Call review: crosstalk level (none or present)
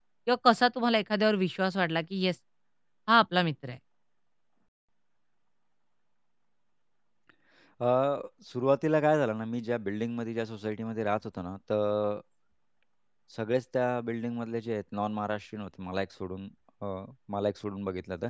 none